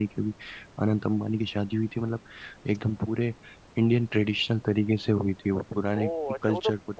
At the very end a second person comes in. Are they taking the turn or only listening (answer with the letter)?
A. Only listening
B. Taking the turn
B